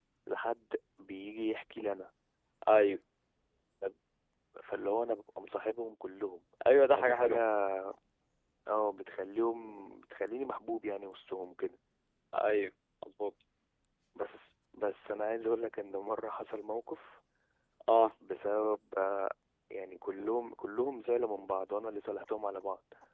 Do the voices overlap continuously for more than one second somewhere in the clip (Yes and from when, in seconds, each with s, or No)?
No